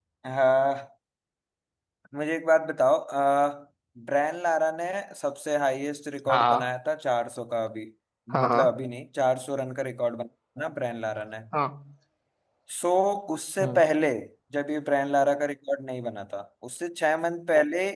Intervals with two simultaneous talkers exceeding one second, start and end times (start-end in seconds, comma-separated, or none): none